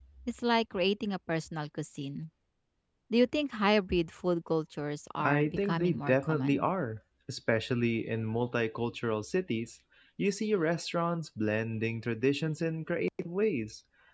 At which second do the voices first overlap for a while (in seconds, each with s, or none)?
5.2 s